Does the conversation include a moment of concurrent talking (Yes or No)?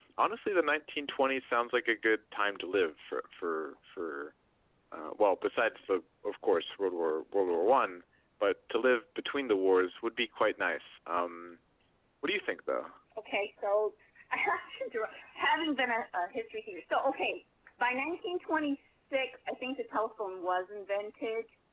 No